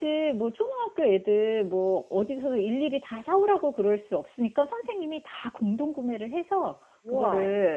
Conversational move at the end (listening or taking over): listening